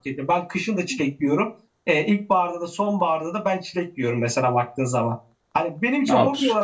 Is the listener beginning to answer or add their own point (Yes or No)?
No